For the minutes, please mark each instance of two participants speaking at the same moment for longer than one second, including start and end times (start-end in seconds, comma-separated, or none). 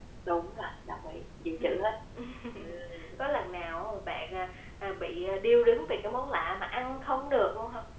none